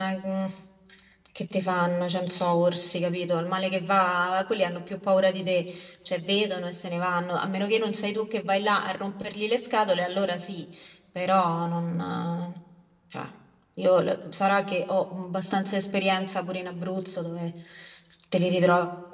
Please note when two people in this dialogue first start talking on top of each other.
none

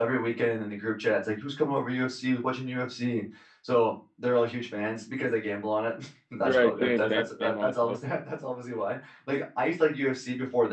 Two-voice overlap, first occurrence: 6.4 s

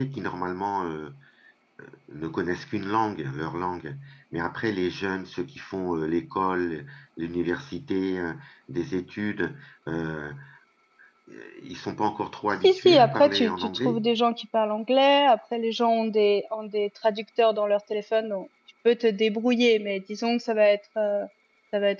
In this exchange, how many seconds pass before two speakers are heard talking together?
12.6 s

